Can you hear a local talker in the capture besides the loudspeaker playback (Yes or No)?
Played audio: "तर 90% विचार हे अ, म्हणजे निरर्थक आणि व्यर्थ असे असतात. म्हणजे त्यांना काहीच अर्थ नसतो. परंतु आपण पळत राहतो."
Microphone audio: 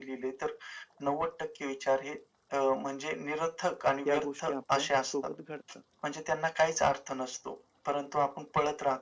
Yes